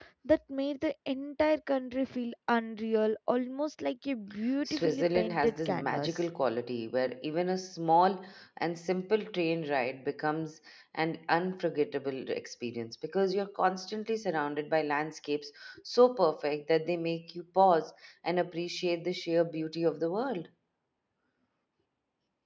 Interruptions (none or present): present